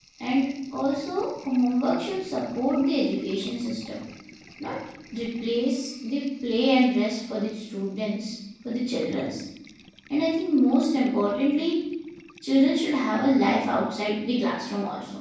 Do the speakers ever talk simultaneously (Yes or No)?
No